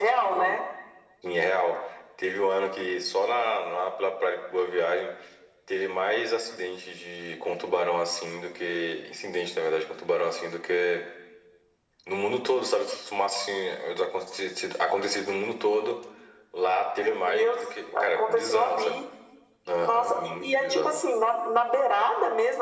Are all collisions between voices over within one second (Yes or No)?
No